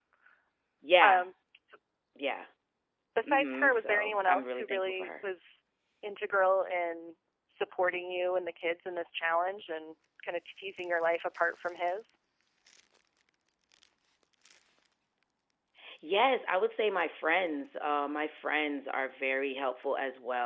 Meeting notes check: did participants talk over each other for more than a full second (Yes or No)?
Yes